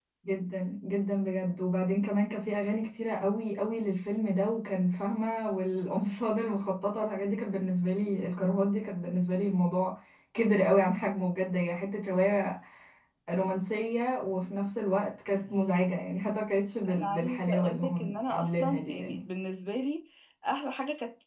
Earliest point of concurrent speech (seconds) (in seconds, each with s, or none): 16.9 s